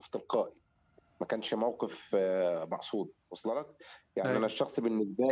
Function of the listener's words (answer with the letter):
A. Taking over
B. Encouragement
B